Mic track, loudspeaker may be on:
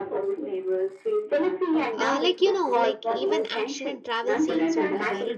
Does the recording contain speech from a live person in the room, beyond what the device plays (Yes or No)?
Yes